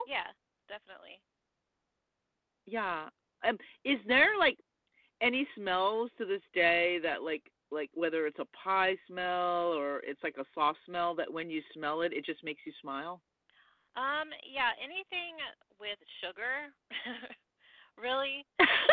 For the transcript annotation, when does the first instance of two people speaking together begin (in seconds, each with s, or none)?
none